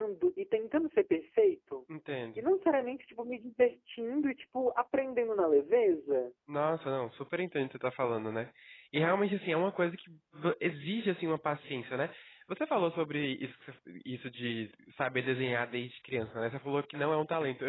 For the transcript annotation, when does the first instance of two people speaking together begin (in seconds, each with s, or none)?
none